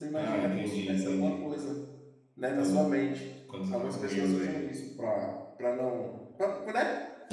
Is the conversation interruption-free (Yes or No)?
No